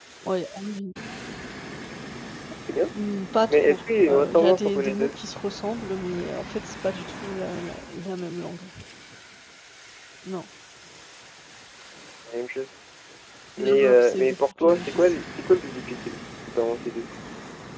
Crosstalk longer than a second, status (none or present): present